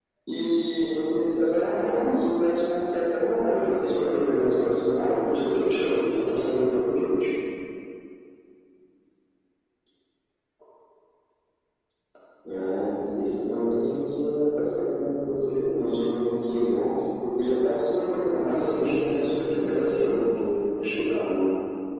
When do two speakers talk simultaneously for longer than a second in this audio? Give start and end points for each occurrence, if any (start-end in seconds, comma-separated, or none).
3.5-5.2, 18.4-20.3